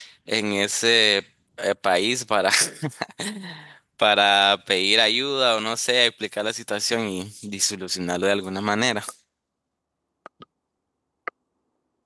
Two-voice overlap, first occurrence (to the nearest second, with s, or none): none